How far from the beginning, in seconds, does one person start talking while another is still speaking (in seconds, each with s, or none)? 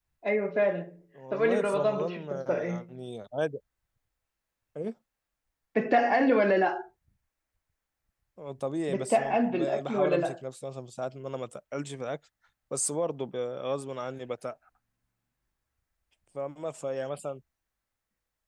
1.3 s